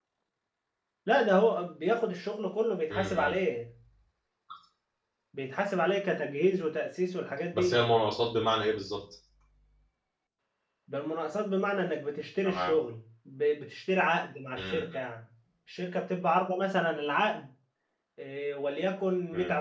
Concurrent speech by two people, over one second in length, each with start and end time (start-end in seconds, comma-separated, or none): none